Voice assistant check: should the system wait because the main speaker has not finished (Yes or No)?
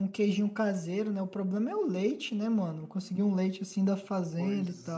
No